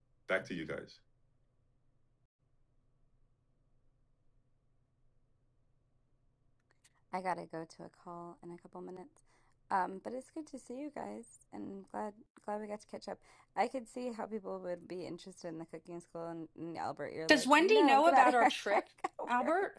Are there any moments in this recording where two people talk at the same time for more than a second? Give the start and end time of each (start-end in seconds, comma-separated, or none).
17.3-18.8